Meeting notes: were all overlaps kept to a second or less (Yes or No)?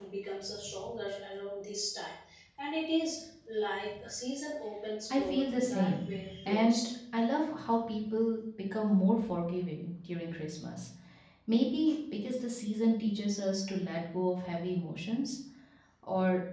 No